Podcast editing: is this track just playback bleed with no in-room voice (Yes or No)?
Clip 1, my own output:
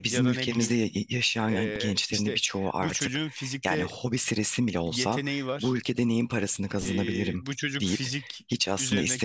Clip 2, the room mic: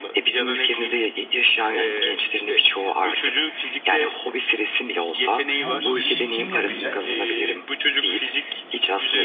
No